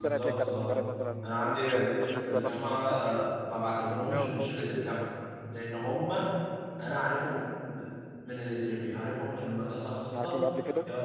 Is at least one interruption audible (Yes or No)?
Yes